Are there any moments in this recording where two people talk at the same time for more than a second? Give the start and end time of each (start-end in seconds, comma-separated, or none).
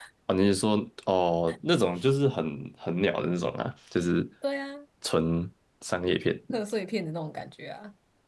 none